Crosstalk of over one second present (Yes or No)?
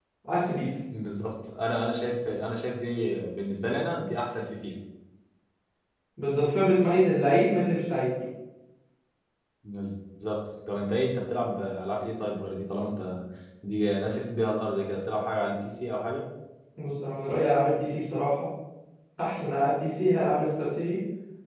No